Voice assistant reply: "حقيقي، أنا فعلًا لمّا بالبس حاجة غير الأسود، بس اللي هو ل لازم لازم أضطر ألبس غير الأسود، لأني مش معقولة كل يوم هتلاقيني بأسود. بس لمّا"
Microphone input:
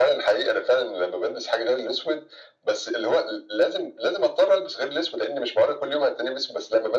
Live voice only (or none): none